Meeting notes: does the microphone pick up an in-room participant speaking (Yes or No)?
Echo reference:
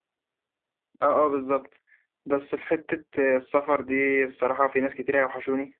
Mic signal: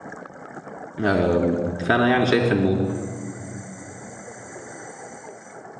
Yes